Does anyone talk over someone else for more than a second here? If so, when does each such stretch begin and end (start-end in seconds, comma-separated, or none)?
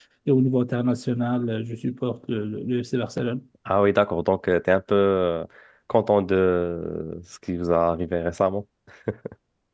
none